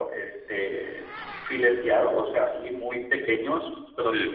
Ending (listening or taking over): listening